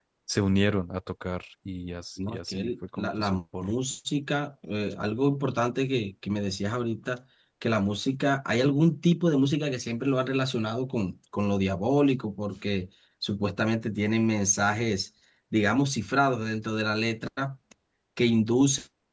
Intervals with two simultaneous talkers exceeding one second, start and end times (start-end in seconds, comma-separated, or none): 2.3-3.7